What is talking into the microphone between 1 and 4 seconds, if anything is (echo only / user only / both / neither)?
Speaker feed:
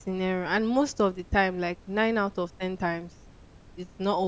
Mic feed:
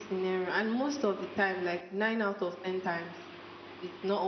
echo only